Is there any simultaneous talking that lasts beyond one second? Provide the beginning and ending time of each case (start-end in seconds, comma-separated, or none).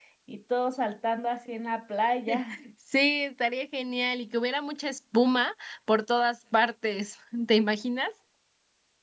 none